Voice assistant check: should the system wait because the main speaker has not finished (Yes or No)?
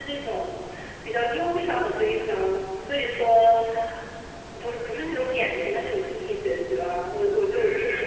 No